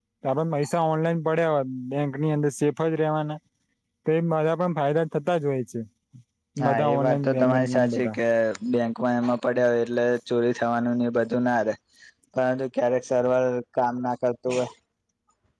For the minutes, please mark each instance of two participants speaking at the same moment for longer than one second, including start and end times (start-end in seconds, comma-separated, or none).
6.6-8.2